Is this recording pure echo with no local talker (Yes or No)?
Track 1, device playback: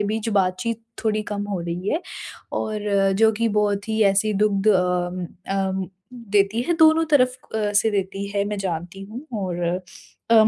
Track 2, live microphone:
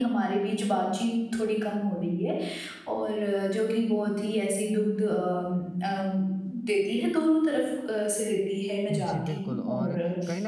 No